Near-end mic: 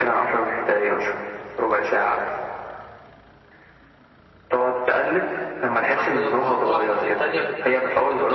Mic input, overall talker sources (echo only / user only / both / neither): echo only